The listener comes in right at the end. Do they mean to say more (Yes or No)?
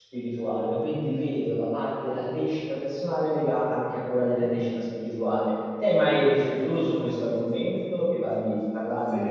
Yes